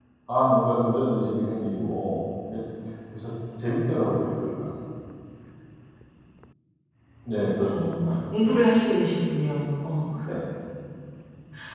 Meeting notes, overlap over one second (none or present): none